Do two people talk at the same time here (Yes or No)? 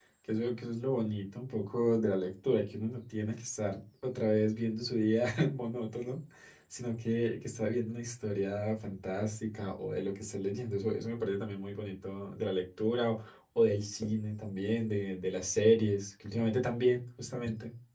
No